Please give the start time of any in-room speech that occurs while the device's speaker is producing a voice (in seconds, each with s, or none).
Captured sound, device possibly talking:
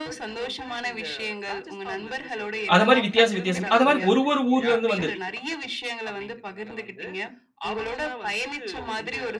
2.7 s